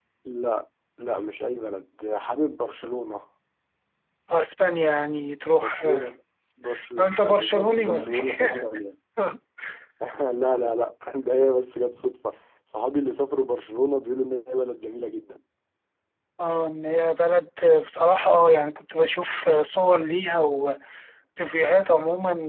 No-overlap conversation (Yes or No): No